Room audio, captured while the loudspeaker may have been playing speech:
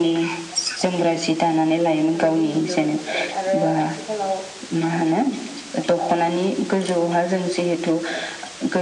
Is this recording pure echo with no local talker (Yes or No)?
No